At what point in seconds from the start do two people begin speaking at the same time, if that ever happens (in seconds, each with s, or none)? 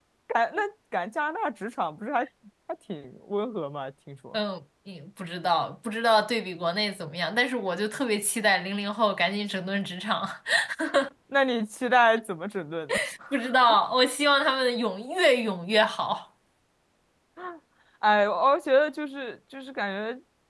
none